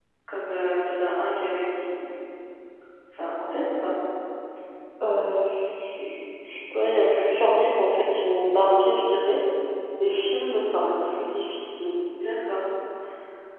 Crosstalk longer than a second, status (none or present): none